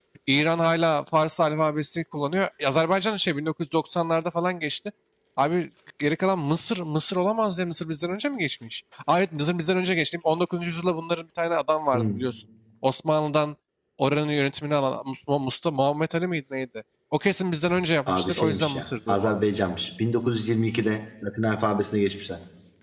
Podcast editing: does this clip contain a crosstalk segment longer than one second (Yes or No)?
Yes